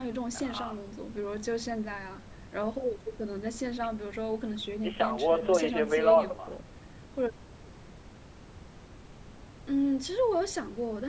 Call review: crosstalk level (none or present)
present